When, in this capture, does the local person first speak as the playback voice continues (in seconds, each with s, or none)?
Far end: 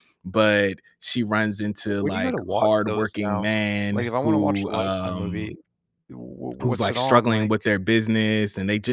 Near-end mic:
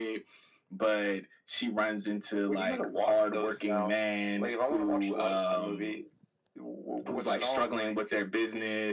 none